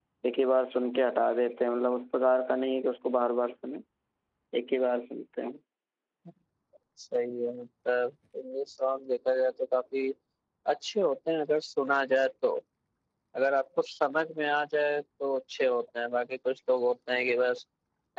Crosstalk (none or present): none